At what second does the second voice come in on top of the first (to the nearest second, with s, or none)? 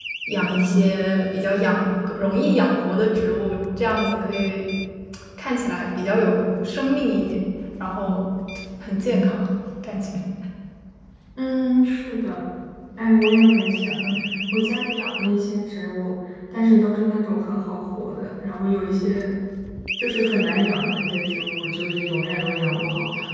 none